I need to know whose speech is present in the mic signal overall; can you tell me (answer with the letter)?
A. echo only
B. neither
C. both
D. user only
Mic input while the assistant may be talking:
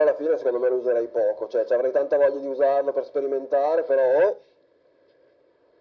A